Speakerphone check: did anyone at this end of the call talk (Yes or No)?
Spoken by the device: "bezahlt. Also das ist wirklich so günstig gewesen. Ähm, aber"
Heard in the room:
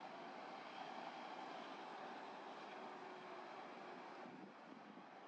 No